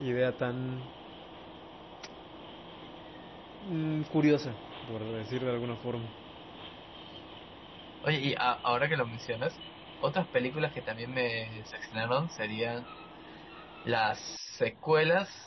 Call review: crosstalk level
none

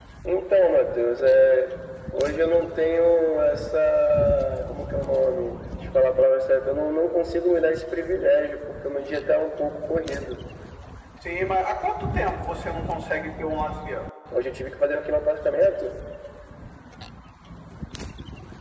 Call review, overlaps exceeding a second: none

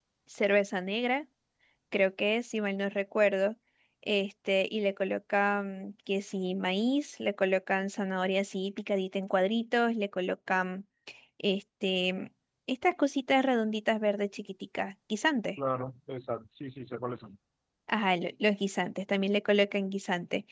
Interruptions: none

